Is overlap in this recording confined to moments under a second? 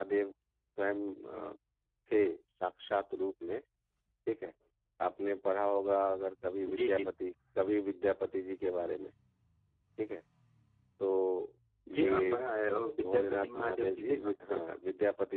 No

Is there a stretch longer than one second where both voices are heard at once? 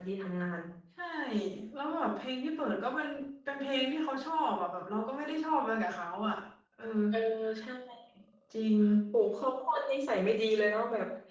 No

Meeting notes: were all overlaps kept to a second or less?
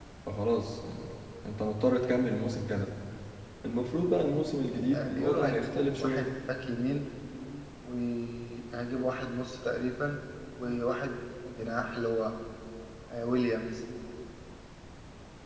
No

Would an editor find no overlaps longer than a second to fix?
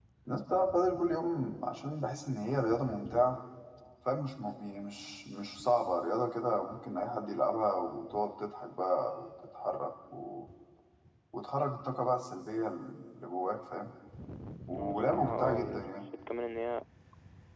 No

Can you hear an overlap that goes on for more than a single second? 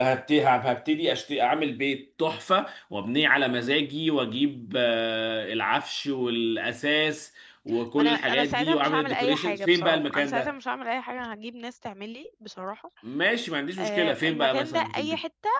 Yes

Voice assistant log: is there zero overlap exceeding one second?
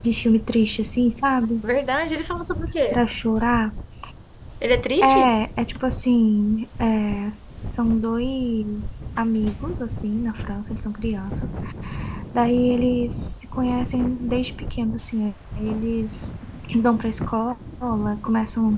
Yes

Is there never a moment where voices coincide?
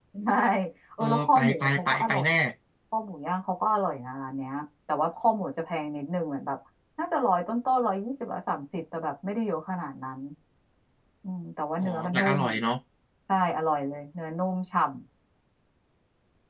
No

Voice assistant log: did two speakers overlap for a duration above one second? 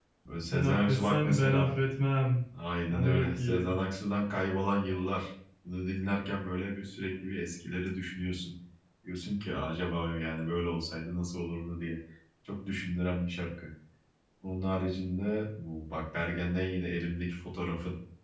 Yes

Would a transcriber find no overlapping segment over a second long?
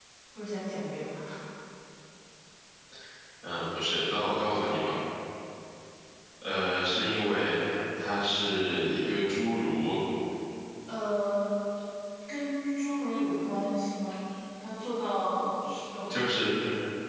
Yes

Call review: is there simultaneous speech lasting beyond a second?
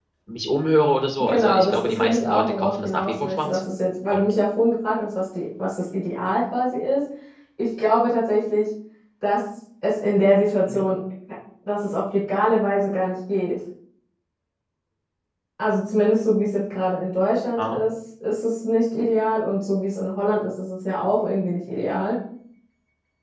Yes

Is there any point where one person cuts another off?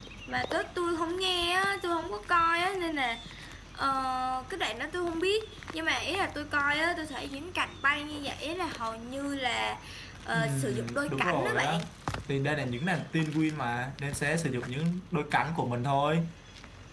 Yes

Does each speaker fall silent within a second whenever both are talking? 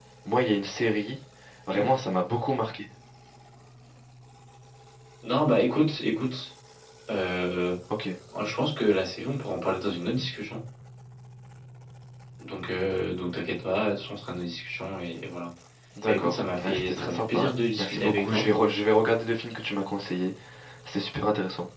No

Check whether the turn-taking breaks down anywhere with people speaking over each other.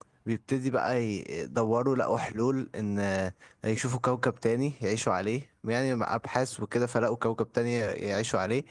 No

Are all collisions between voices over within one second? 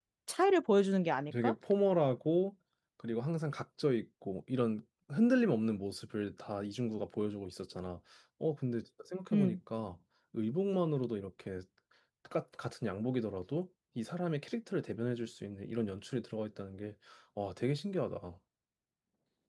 Yes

